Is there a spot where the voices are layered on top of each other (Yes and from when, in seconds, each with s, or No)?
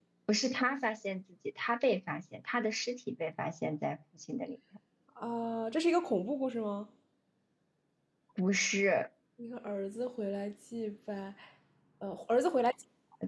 No